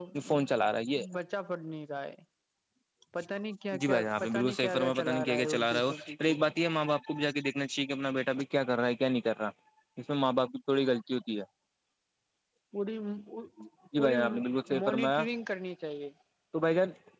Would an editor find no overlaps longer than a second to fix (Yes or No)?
No